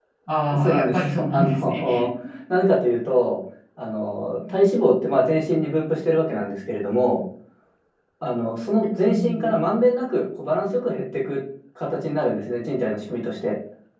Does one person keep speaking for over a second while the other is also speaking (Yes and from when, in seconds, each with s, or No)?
Yes, from 0.6 s